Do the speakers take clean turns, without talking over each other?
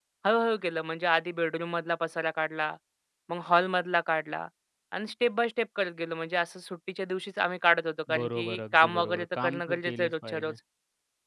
No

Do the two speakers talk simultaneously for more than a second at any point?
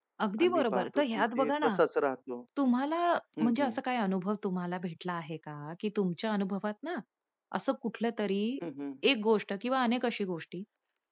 Yes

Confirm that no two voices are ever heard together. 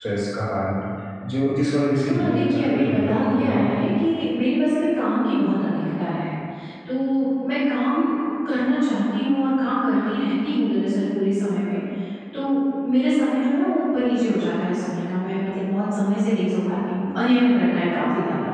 No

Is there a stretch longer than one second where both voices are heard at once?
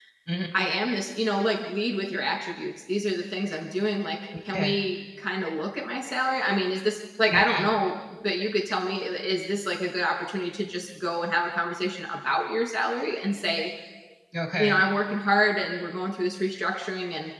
No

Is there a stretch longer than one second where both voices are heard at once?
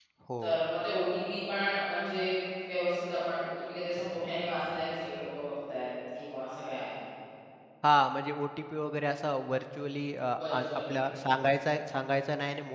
No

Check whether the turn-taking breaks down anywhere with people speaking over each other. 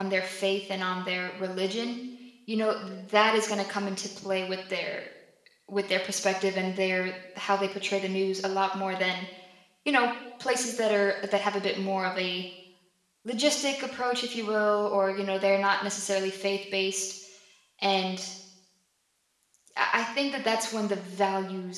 No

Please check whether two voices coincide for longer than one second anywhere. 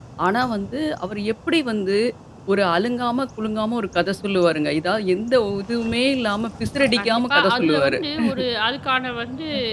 Yes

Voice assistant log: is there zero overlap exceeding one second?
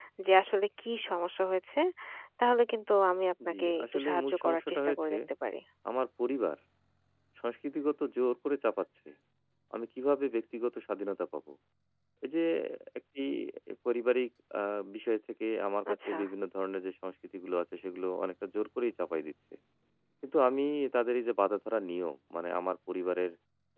No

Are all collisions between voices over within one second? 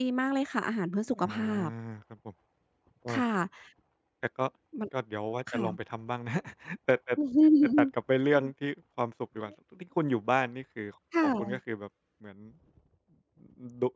Yes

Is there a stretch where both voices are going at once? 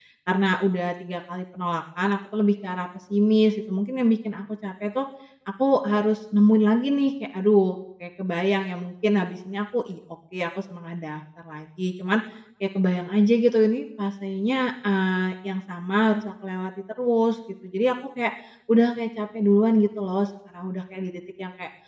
No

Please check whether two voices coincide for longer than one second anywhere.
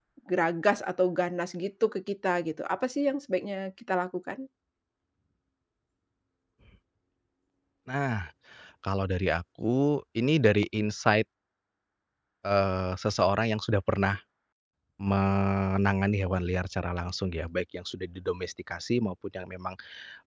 No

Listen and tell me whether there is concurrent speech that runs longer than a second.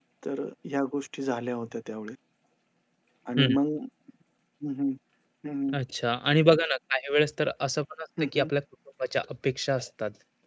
No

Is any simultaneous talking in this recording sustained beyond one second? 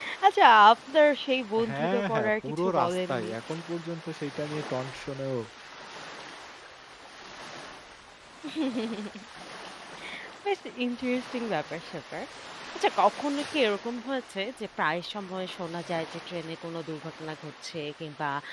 Yes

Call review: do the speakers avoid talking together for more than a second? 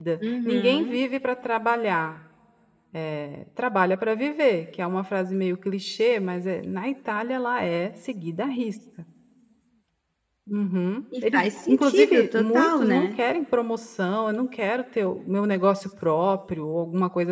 No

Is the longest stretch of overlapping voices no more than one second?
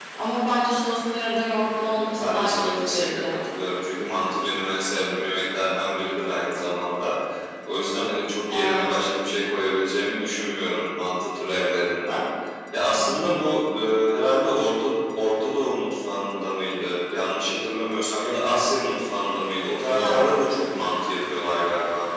No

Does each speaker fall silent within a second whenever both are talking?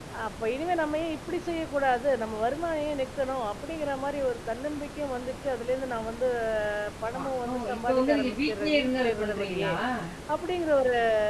No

